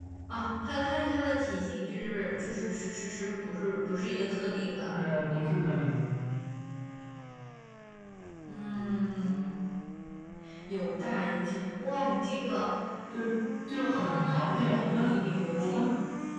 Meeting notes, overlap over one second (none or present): present